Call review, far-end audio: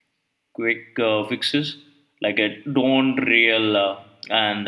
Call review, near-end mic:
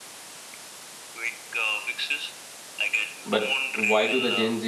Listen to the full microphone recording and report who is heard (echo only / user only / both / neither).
both